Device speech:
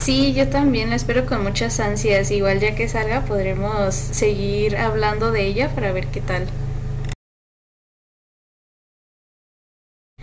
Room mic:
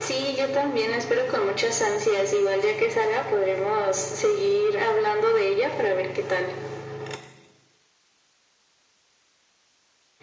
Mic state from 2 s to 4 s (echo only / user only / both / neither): echo only